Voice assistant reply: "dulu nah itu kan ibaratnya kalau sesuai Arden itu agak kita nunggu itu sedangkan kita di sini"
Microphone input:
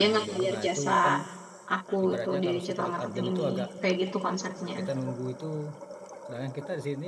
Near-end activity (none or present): present